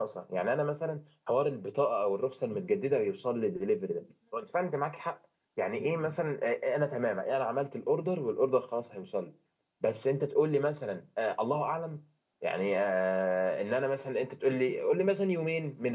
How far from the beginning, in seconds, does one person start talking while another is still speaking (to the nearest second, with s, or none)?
none